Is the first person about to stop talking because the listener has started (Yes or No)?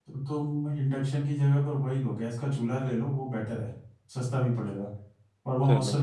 No